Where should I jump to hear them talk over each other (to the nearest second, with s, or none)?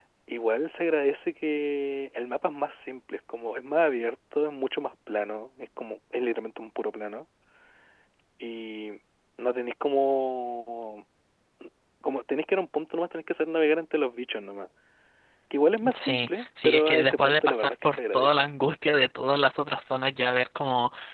16 s